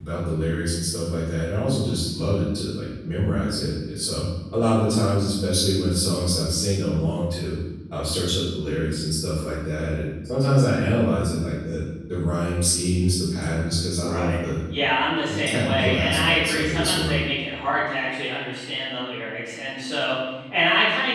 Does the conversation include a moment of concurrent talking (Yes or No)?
Yes